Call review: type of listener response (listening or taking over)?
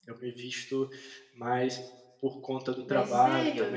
listening